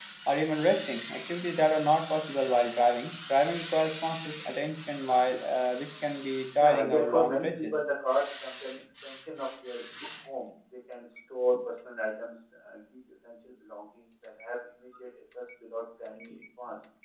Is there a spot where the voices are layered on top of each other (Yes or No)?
Yes